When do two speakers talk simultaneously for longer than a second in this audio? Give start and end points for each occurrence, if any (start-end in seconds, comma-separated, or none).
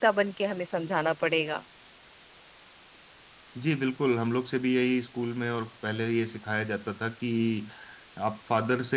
none